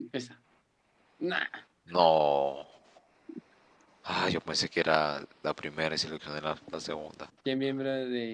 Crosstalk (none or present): none